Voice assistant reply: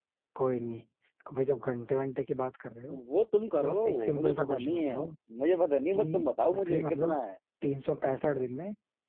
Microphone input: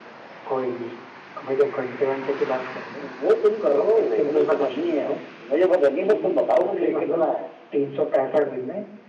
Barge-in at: none

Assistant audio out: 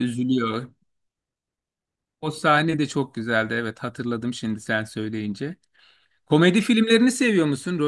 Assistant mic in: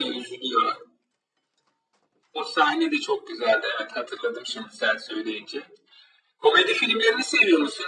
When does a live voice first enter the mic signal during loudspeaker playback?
none

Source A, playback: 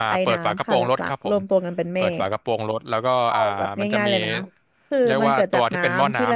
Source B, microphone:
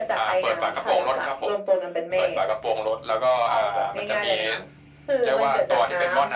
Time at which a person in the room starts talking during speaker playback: none

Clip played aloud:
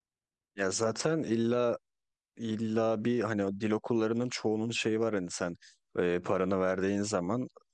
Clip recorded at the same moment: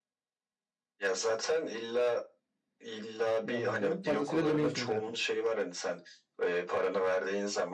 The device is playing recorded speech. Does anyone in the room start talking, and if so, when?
3.5 s

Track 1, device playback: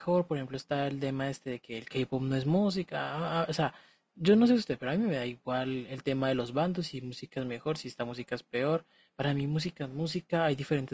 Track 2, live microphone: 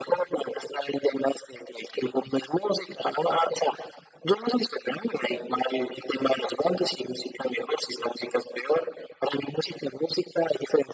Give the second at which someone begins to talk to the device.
none

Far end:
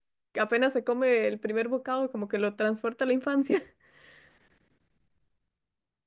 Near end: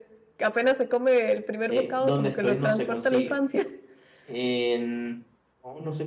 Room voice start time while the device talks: 1.7 s

